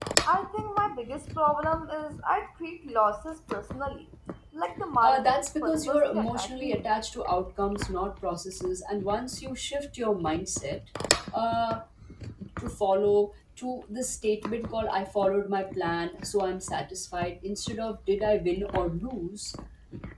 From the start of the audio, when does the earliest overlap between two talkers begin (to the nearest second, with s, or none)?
5 s